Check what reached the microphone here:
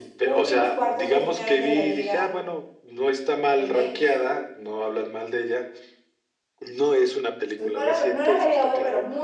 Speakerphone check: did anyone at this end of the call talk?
Yes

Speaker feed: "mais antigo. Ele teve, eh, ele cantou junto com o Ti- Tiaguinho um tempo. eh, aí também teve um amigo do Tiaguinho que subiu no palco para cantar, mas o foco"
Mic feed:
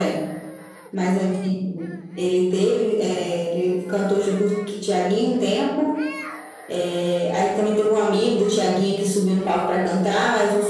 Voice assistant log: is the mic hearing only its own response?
Yes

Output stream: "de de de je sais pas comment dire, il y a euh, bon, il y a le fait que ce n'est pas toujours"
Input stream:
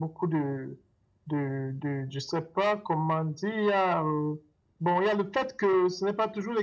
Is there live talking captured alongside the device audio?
No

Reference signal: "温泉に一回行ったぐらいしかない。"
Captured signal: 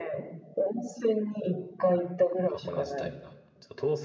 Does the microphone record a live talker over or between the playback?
Yes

